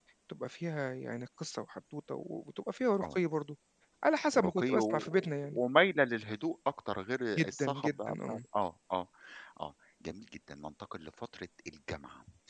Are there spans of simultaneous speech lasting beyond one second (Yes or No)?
Yes